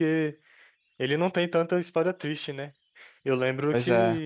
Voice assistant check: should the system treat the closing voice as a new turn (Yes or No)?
No